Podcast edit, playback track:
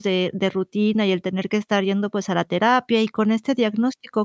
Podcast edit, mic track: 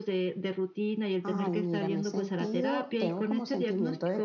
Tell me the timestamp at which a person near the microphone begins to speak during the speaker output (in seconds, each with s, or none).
1.2 s